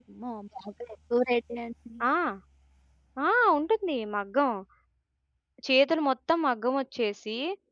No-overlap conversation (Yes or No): Yes